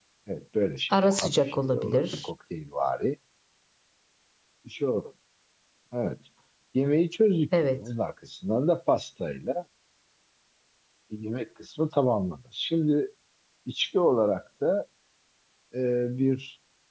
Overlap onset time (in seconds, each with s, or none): 1.0 s